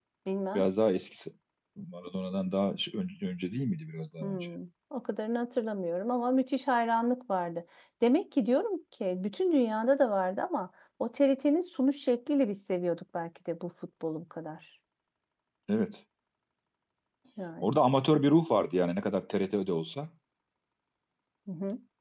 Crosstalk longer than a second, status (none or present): none